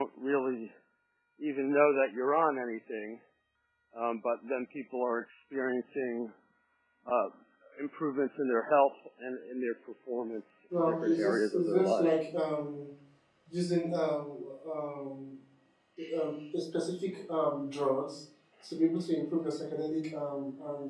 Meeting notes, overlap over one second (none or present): present